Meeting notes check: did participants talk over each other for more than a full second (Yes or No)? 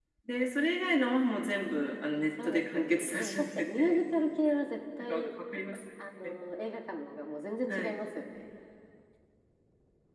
Yes